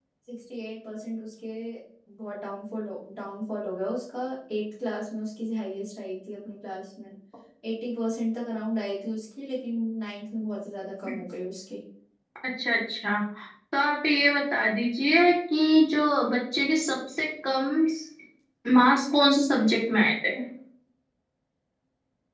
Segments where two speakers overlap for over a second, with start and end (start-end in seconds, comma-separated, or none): none